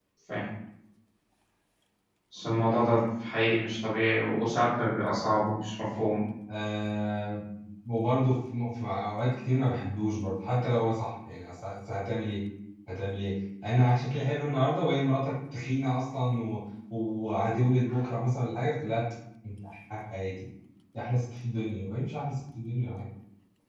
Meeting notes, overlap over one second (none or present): none